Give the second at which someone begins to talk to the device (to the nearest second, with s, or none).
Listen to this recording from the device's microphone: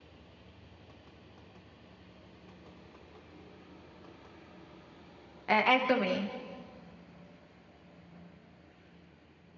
5 s